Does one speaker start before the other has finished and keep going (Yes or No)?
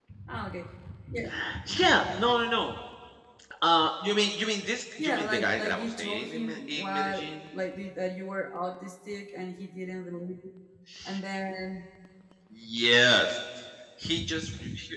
Yes